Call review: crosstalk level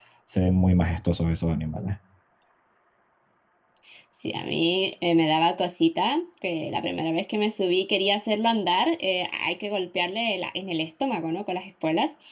none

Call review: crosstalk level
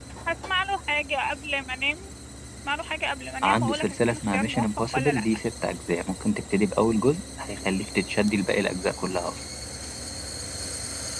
present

